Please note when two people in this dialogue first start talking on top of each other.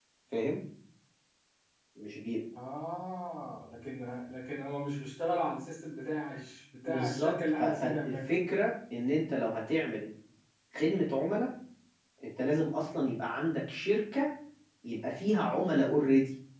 7 s

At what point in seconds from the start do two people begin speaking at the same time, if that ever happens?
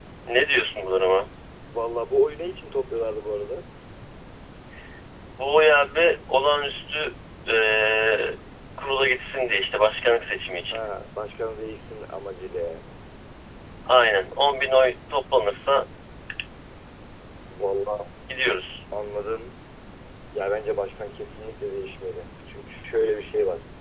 none

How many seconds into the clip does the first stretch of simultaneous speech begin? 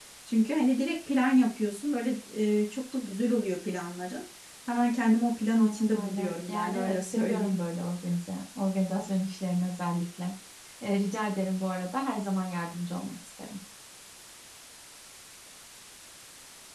6 s

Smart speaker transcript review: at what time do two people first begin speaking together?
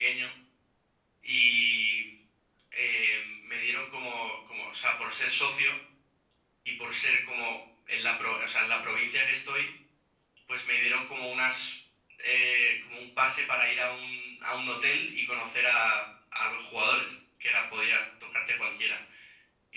none

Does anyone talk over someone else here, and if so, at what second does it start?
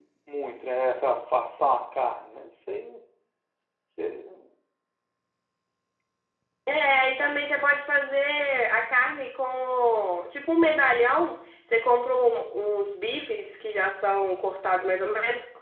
none

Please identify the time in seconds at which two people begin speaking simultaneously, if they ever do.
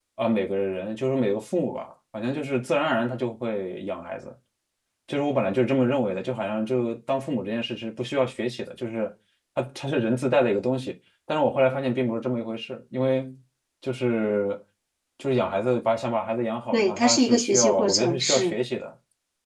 17 s

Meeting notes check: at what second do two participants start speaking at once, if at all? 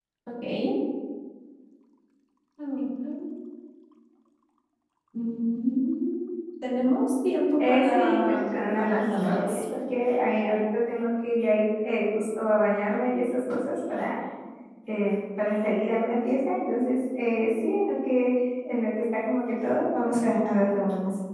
8 s

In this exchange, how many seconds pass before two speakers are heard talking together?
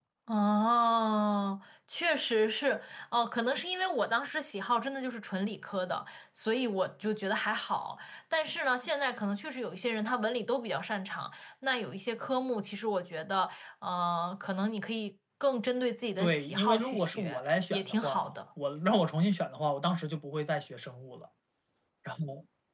16 s

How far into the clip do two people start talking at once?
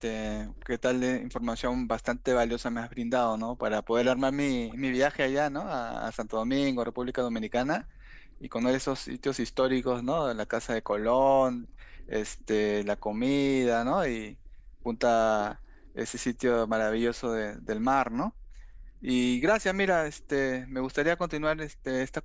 none

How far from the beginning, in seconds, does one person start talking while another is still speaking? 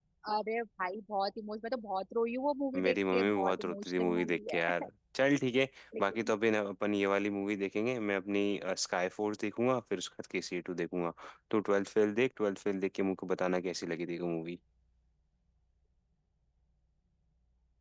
3 s

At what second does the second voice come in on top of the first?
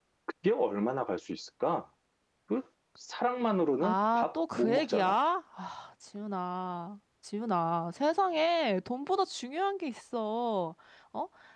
4 s

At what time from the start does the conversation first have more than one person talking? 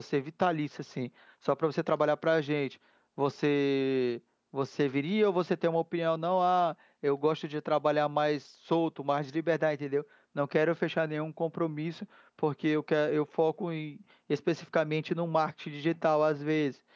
none

